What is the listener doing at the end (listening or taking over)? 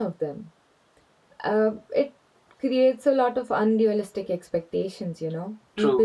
listening